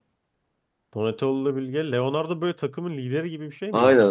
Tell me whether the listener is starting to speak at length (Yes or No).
Yes